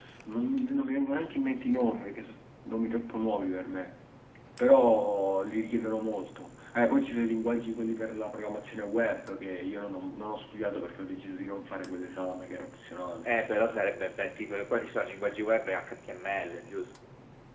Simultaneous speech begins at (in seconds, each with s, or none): none